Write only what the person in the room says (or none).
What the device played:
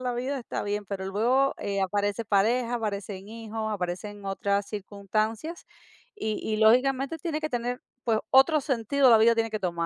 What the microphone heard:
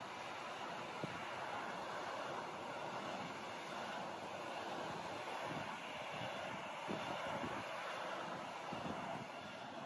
none